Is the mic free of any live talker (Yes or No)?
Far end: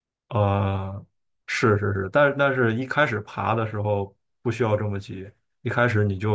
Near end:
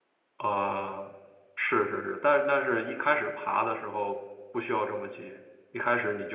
Yes